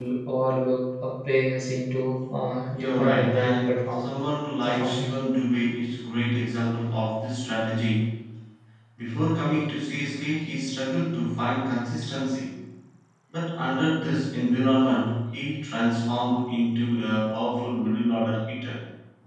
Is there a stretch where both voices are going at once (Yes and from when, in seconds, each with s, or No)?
Yes, from 2.7 s